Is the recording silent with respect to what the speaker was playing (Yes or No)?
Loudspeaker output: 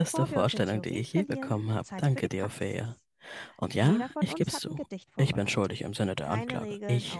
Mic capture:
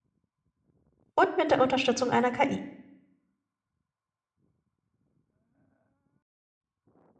Yes